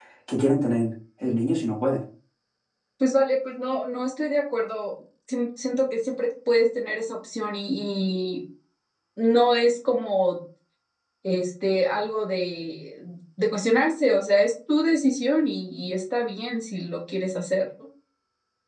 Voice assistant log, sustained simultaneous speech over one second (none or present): none